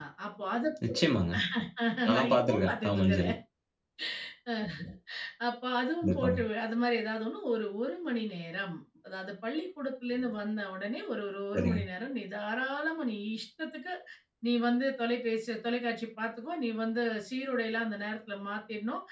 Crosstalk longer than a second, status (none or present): present